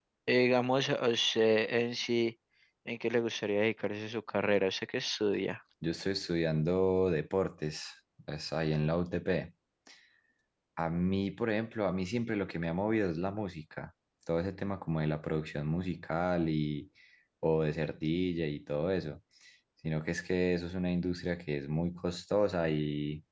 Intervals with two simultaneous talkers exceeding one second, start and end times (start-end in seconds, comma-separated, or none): none